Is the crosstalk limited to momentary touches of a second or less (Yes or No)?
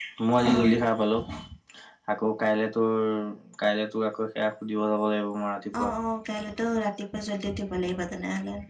Yes